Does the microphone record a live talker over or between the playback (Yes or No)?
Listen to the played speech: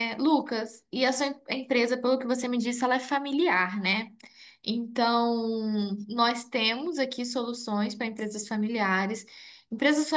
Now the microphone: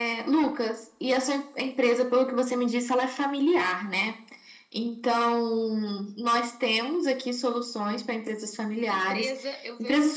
Yes